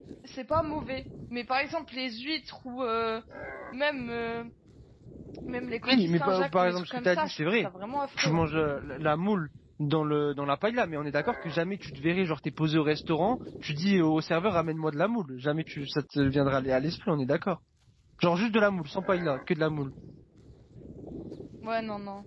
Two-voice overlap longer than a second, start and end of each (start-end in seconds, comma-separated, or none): 5.9-7.7